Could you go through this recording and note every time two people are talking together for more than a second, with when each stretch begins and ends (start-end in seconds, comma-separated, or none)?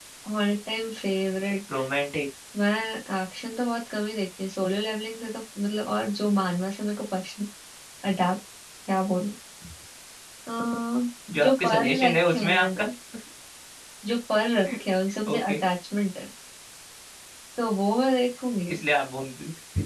11.4-12.8